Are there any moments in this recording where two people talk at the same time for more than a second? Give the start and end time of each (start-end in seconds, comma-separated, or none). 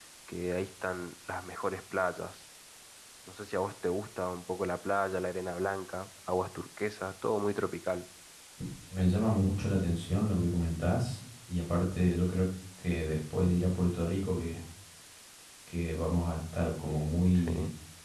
none